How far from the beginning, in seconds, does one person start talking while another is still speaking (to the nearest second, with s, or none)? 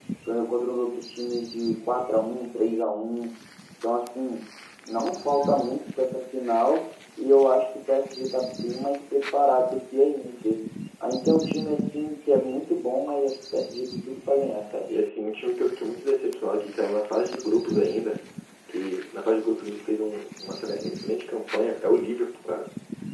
none